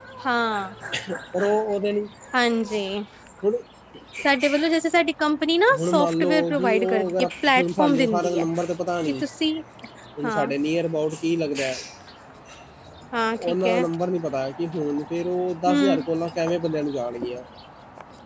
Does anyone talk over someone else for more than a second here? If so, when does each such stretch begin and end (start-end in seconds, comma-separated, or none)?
5.8-8.5